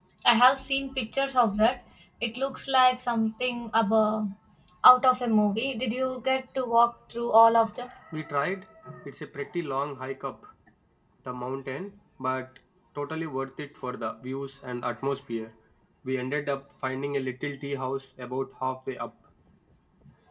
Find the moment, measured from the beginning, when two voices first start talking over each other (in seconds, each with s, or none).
none